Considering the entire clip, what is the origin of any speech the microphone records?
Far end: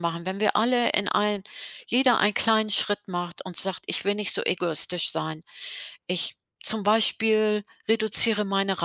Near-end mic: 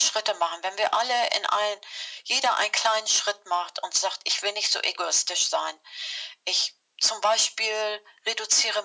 echo only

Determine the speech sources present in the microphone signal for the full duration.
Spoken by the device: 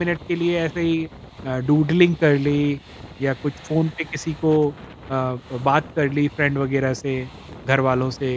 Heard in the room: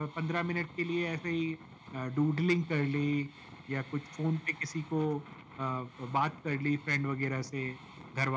echo only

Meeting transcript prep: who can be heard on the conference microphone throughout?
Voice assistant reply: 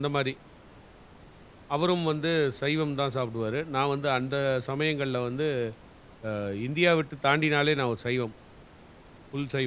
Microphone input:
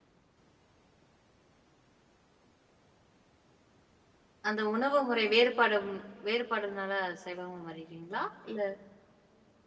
user only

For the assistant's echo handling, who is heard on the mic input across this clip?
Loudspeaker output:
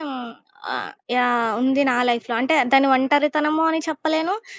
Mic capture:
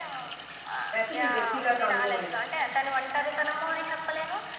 both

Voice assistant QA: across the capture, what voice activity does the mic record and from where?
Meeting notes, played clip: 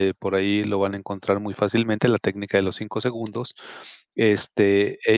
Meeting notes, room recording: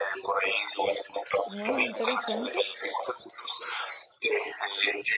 both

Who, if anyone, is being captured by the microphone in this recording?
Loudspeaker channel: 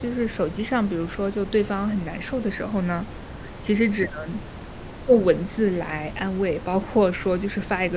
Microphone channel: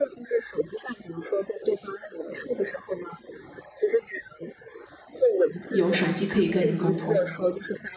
both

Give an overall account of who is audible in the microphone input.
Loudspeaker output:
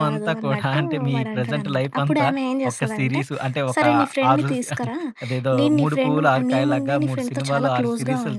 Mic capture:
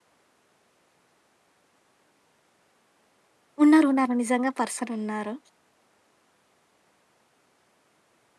user only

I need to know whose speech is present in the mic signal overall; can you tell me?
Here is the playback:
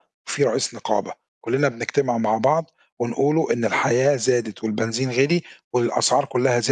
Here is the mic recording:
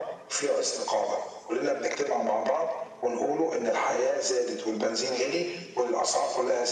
echo only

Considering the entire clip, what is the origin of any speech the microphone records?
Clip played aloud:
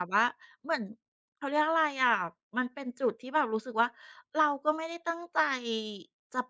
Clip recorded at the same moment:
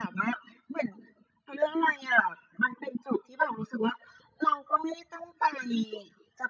echo only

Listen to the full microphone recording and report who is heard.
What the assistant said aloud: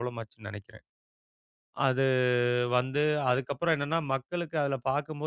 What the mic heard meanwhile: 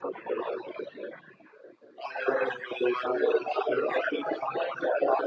echo only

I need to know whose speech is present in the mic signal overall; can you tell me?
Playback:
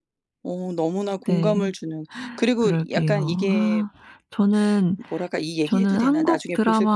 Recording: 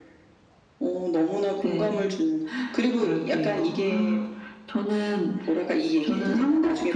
echo only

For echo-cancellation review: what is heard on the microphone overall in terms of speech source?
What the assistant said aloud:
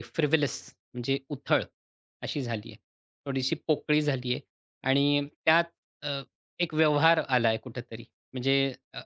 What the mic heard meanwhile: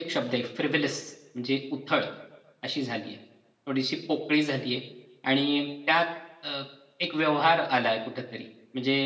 echo only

